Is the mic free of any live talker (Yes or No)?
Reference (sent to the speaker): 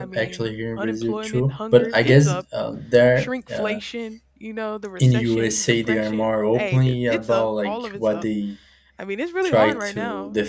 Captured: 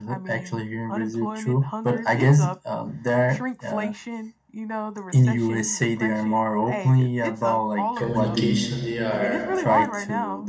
No